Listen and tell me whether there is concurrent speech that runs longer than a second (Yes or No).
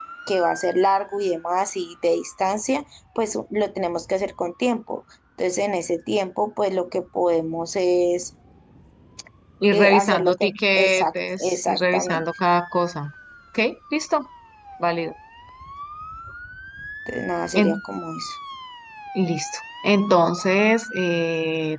Yes